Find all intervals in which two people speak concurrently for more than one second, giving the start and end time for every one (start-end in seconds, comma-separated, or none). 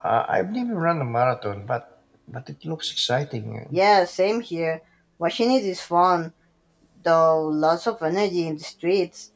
none